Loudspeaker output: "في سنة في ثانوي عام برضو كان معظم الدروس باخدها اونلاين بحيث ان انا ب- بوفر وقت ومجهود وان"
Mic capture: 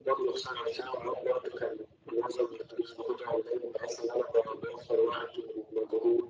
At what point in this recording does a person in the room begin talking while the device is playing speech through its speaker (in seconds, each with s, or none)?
none